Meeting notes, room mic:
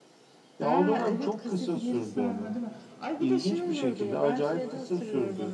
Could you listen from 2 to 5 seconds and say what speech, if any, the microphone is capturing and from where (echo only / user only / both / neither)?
both